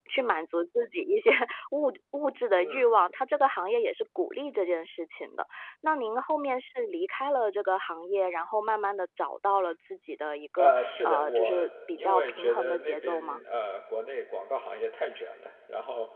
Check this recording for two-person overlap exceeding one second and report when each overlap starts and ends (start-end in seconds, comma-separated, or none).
10.6-13.4